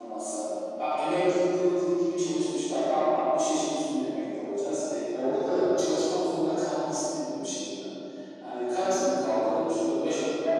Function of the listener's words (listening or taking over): listening